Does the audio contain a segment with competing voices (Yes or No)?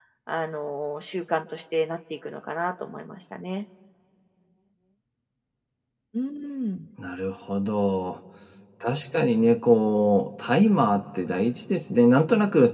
No